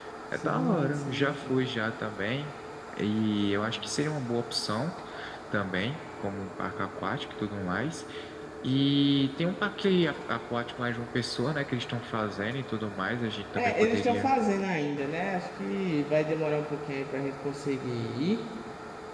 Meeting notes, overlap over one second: present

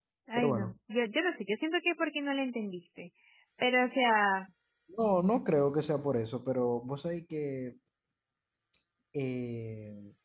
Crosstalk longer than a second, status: none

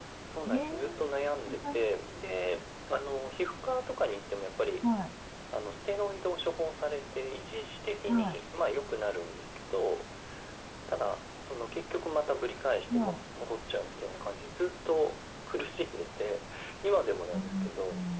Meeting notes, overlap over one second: none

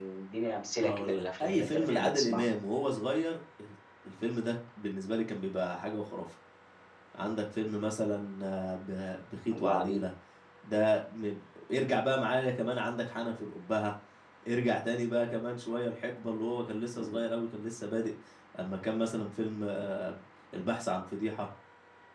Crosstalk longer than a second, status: present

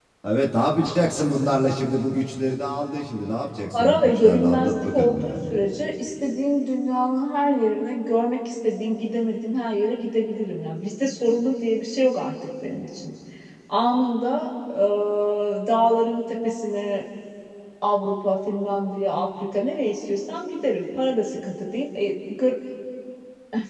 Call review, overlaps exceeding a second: present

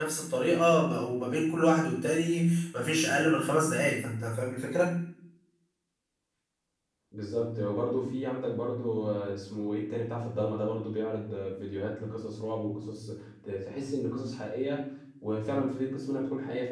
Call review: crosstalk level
none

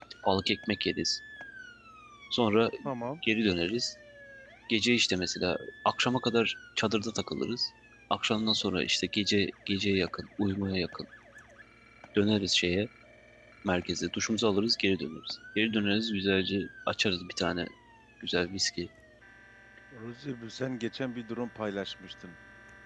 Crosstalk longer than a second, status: none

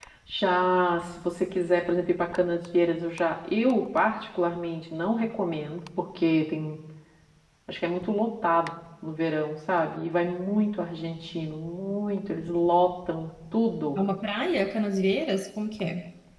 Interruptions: none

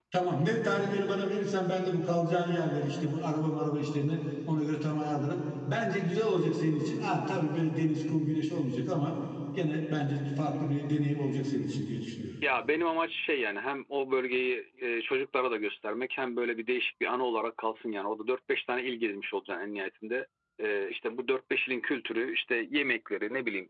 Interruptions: none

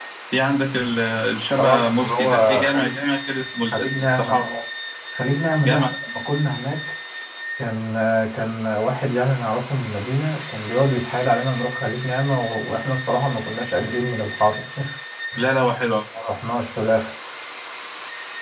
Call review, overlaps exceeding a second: present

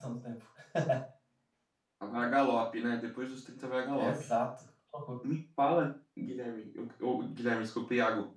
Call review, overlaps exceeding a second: none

